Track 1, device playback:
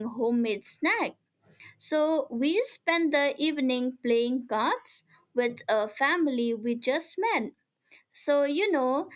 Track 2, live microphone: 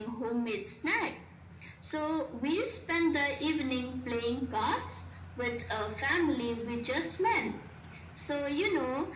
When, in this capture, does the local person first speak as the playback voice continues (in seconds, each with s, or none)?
none